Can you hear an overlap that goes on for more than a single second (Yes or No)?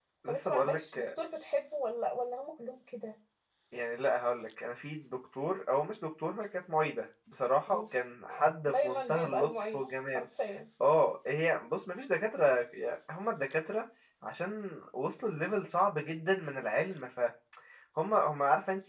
Yes